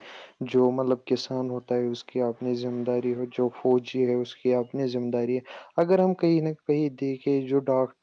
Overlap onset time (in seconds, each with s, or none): none